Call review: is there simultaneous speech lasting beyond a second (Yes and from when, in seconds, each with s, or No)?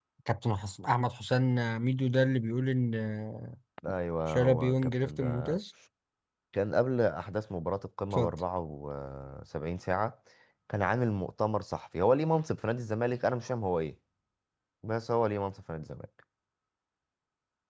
Yes, from 4.3 s